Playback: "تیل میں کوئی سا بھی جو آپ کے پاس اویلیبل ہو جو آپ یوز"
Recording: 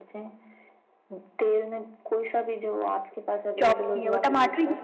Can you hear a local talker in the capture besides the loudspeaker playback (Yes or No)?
Yes